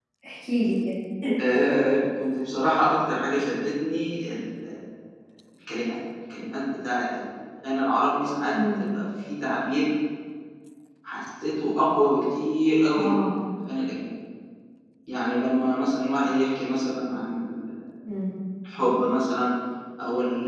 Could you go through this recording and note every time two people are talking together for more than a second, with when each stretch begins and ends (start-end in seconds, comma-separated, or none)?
none